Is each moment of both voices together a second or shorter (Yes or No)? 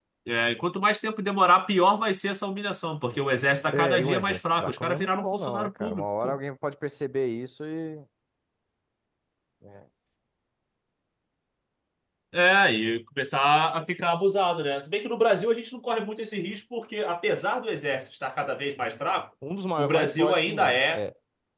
No